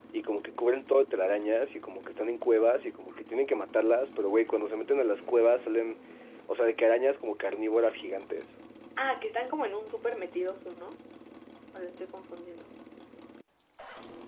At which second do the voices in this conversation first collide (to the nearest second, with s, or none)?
none